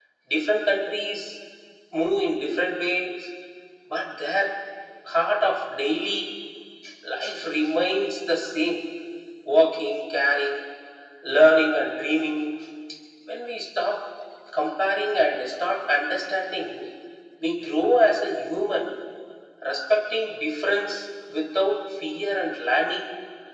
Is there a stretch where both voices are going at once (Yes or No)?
No